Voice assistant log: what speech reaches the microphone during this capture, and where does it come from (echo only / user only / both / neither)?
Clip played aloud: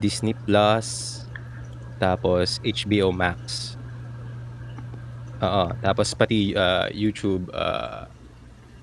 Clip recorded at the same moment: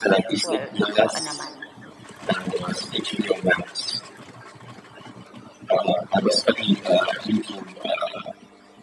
both